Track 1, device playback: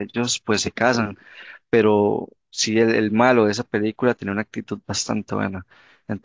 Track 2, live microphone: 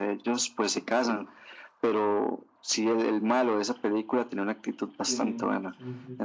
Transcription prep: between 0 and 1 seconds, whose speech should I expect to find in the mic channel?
echo only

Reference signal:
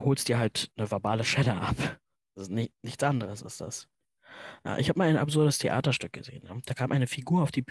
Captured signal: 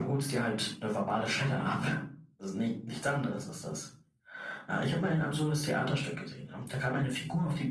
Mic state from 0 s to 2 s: echo only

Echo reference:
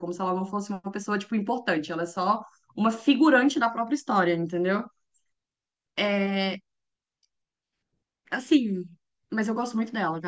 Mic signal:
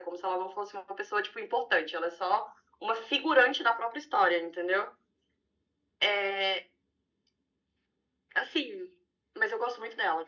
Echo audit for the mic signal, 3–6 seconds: echo only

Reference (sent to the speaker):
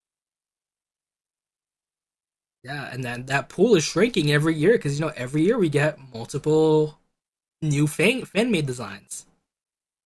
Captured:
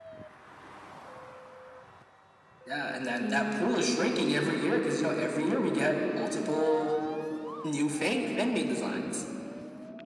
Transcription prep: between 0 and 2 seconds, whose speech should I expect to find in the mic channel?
neither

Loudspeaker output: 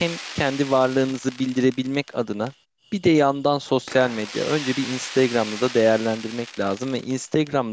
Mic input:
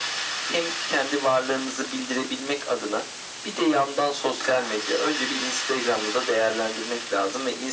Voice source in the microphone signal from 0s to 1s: echo only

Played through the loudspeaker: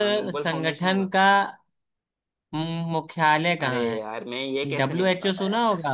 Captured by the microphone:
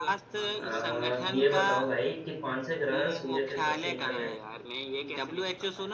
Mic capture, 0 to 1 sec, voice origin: both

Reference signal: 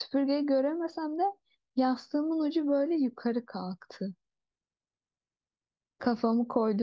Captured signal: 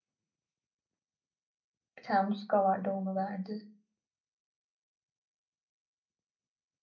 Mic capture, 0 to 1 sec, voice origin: neither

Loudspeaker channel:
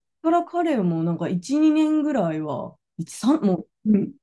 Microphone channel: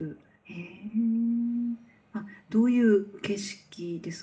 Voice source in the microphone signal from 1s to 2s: user only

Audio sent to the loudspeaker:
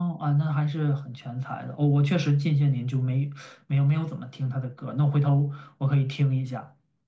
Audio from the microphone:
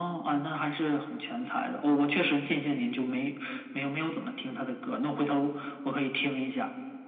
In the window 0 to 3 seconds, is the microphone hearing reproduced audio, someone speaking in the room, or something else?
echo only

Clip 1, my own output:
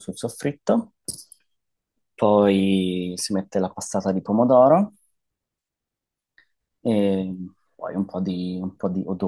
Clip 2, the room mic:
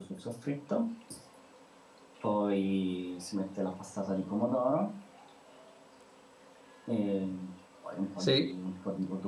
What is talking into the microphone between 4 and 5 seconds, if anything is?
echo only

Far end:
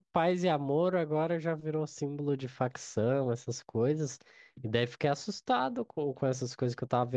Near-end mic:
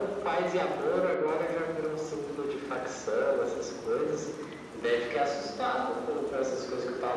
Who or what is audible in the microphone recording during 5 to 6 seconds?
echo only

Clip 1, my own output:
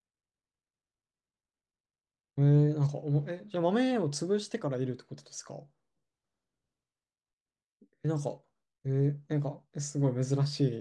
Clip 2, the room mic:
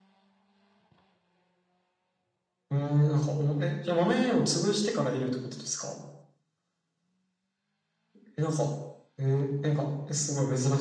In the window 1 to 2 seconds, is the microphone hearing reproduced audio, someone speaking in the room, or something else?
neither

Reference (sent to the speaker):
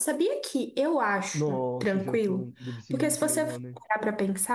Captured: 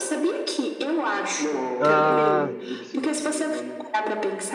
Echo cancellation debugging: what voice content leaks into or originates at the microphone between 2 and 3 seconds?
both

